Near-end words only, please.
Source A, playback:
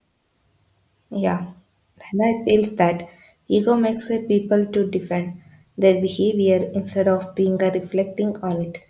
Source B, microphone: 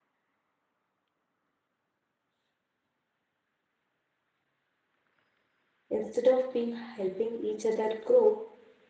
instead of being helping each other grow

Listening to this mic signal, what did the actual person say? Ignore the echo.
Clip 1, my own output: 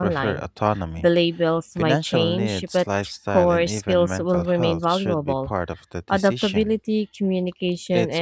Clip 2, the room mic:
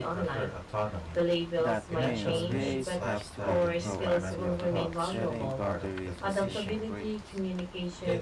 That means VAs have to be proactive about setting boundaries and taking breaks.

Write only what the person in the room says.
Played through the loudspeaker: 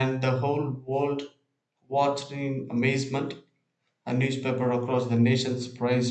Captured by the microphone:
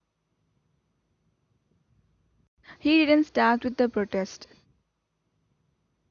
he didn't start with the protest.

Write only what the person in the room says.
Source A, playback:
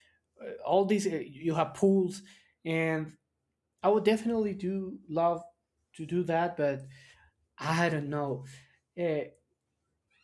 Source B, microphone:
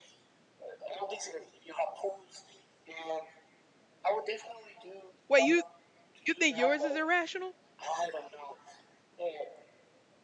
Wait, you you think yours is irrational

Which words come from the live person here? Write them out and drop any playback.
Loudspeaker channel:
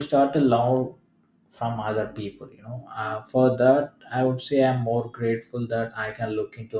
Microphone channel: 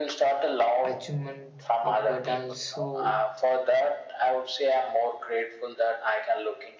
achievement uh, but also

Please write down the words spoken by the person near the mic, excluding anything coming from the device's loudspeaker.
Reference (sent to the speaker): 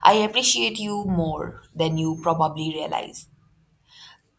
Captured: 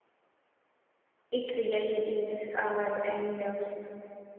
it really is uh, and uh,

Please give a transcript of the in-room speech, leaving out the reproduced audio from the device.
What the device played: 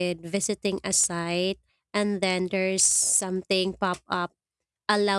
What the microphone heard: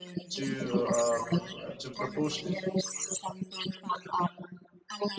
to uh, pr- uh, to propose

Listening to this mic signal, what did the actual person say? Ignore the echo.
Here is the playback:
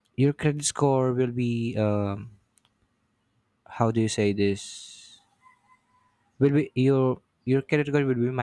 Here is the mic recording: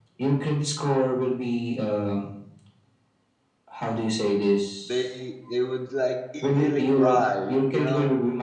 they they would like easily cry. You know.

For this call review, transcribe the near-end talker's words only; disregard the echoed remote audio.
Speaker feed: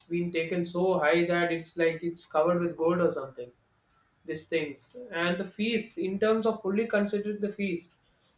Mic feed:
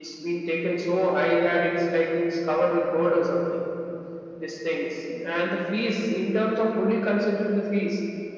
none

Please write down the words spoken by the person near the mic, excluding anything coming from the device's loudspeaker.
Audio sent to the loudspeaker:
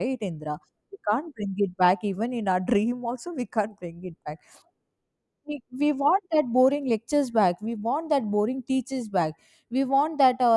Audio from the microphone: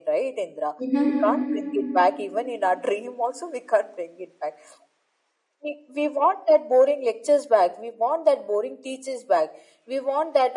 mm-hmm.

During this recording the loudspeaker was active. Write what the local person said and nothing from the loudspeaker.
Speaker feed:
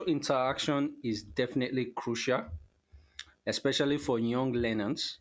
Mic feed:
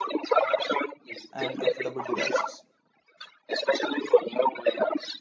and affordable devices.

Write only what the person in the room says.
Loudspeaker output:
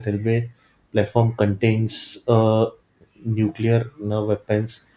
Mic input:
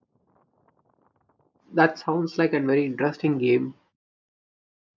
That sounds like a very interesting game.

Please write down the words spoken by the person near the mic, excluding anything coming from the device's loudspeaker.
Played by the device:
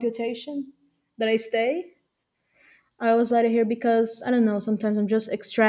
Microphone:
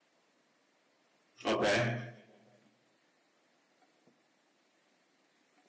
Okay.

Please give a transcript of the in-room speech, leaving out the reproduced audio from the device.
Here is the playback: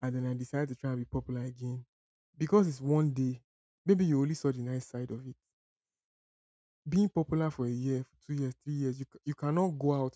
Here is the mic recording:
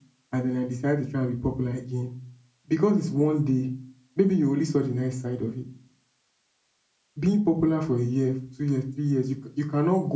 none

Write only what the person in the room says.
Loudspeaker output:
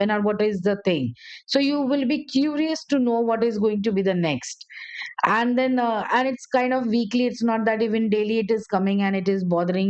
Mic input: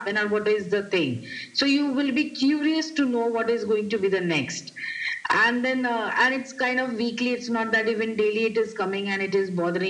none

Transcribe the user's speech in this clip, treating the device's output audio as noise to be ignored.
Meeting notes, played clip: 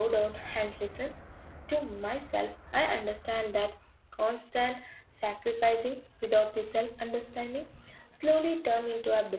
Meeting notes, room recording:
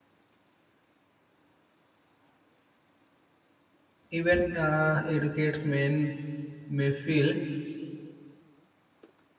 even uh, educated men may feel

